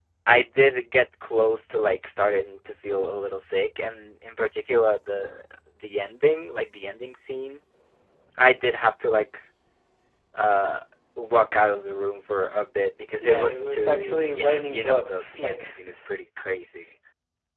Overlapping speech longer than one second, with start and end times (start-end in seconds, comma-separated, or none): 13.2-15.8